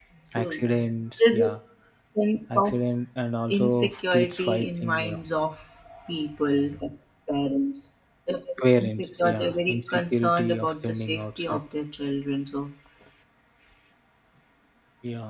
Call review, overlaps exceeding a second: present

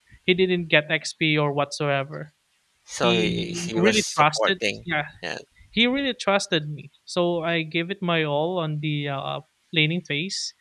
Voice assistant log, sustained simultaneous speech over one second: present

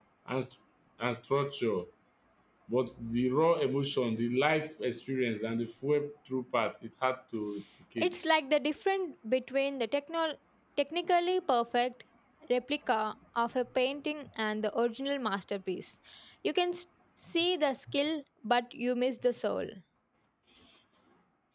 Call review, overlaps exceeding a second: none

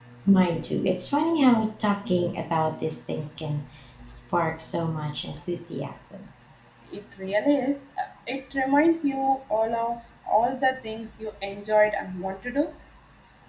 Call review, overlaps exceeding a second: none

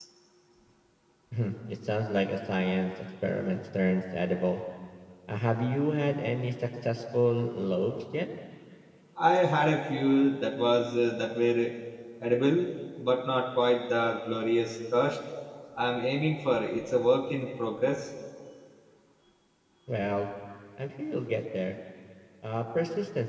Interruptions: none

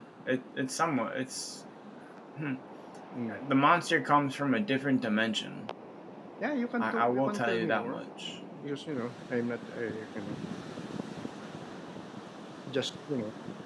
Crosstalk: present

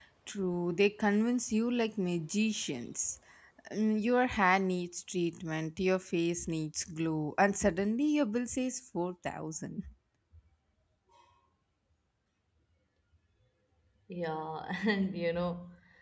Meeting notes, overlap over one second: none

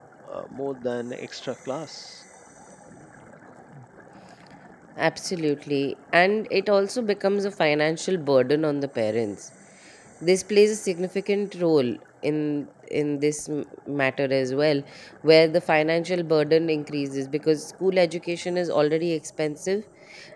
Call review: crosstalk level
none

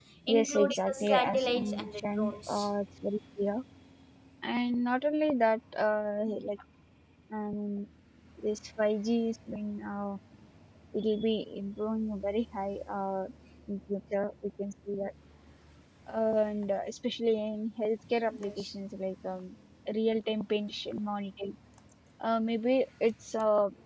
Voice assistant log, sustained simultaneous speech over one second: present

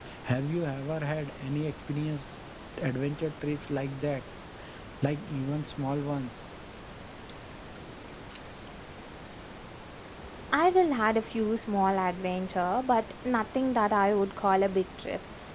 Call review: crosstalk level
none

